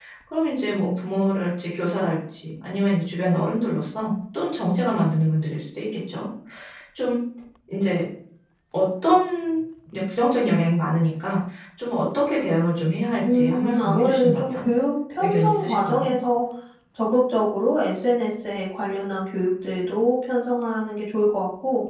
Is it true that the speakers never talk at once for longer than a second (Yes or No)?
No